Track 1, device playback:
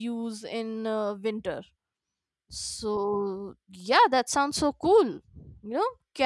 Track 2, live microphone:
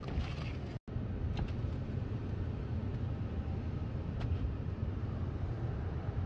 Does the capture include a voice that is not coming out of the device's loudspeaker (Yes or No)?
No